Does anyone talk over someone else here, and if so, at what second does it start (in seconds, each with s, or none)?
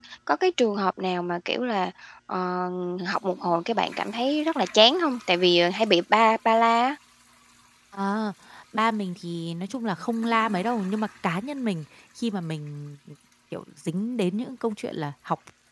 none